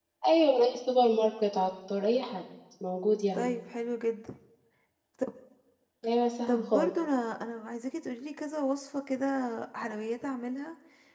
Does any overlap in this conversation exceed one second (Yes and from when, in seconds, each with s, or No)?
No